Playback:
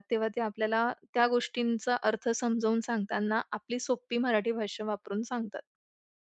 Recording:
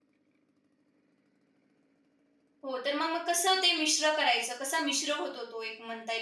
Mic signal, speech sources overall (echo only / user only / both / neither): user only